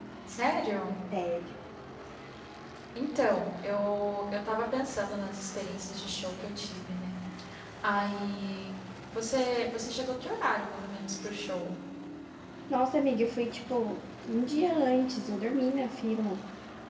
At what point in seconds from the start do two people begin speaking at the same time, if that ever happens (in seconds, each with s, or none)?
none